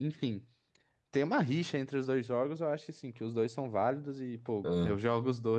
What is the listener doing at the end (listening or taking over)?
listening